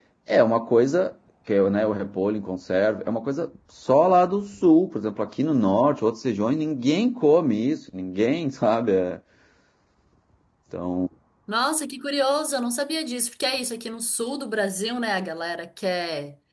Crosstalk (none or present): none